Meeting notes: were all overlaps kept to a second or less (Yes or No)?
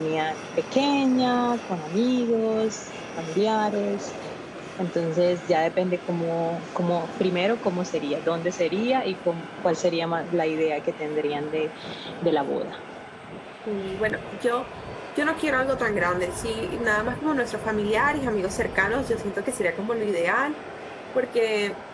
Yes